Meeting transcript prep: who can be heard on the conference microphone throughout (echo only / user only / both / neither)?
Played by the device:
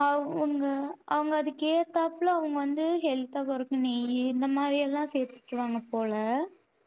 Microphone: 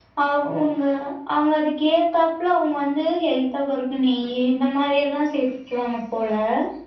echo only